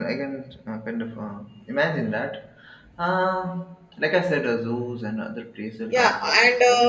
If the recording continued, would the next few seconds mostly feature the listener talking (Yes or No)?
Yes